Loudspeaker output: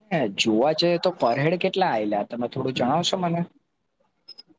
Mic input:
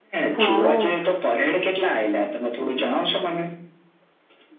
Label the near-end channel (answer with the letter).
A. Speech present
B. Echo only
A